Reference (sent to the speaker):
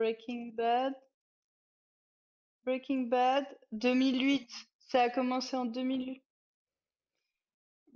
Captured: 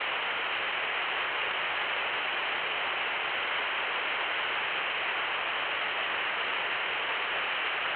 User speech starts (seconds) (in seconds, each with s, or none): none